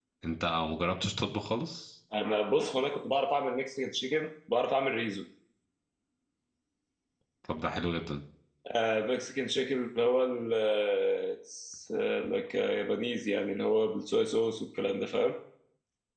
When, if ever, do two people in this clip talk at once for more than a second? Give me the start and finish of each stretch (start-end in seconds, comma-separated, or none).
none